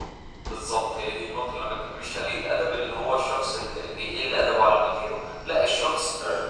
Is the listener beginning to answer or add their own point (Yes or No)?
No